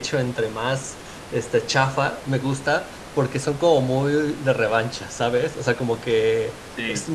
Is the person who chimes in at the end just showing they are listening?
Yes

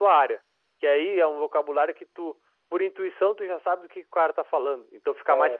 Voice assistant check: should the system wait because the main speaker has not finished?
Yes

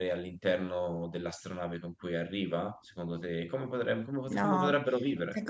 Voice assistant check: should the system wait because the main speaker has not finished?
No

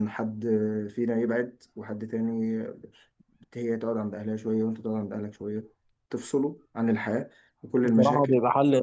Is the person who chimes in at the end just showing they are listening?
No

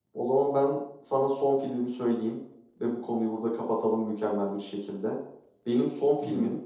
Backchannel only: Yes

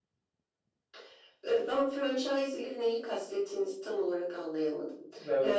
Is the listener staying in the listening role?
No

